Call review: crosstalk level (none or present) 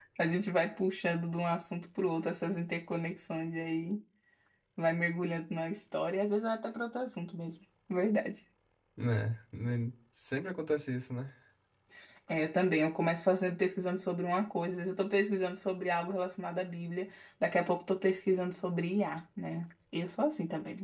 none